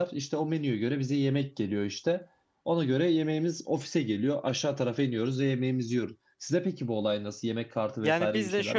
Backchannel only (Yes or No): No